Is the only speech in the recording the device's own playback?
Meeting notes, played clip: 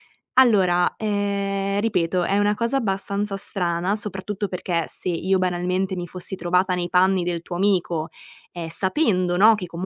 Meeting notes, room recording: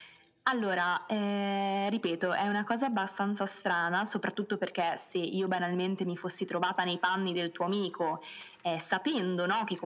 Yes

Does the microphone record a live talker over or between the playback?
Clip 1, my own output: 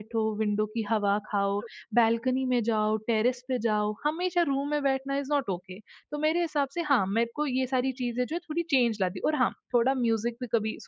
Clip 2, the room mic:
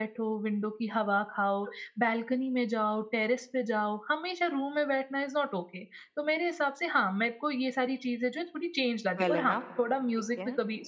Yes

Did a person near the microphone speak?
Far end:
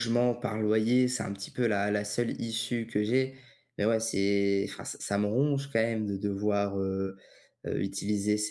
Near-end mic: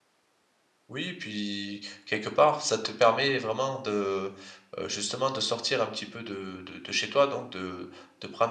Yes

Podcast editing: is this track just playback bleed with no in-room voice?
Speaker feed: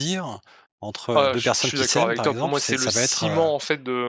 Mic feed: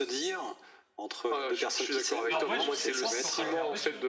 No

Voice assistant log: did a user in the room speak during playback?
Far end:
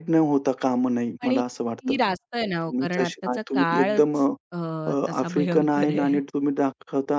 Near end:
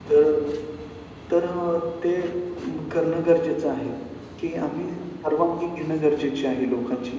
Yes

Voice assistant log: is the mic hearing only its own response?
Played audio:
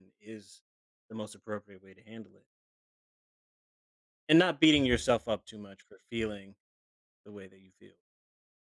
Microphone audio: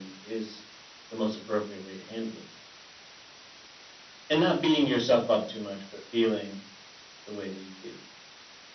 Yes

